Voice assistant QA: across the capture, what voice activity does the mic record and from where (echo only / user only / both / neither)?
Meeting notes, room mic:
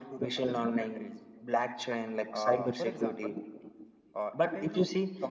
echo only